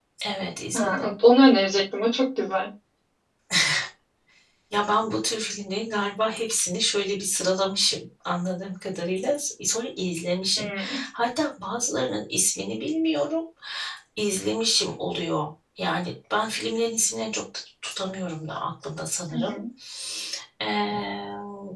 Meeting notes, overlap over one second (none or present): none